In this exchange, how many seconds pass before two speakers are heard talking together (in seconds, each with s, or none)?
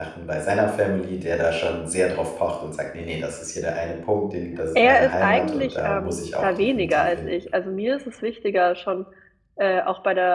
4.8 s